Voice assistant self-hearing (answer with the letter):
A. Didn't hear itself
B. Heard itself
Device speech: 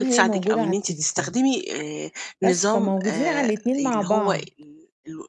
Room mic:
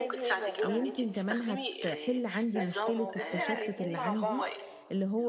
B